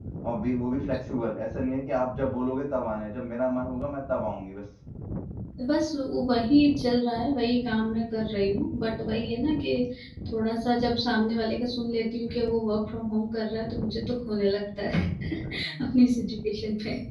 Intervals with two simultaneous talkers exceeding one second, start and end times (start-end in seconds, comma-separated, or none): none